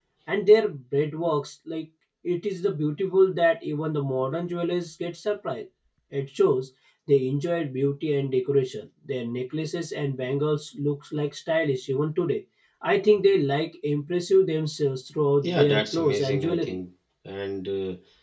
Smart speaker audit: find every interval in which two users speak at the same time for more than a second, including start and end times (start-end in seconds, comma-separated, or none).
15.4-16.8